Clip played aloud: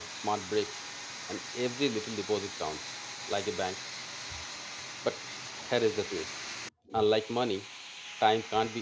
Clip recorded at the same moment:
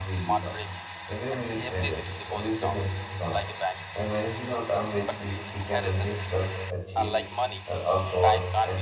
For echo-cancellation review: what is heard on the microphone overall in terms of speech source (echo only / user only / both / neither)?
both